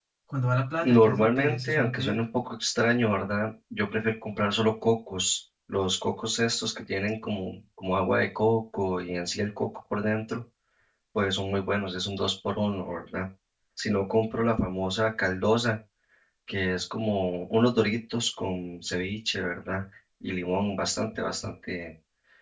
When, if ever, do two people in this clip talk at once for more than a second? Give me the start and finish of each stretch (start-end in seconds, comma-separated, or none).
0.8-2.2